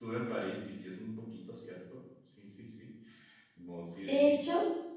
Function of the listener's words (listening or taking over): taking over